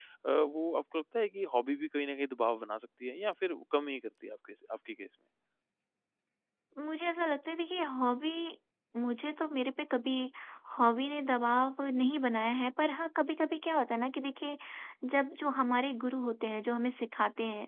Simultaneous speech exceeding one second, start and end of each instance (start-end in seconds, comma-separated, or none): none